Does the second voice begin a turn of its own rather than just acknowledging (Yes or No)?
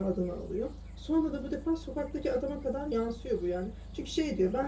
No